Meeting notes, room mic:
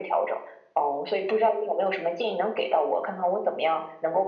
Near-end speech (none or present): none